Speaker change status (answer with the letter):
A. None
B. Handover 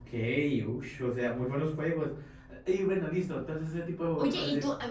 B